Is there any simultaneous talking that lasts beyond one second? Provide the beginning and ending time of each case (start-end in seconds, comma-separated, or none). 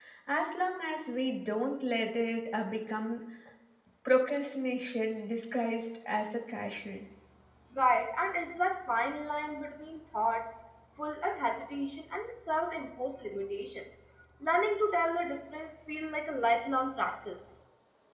none